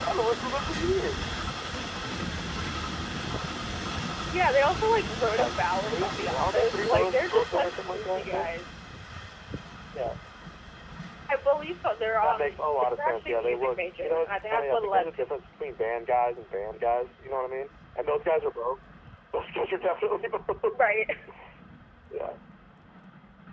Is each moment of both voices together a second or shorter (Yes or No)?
No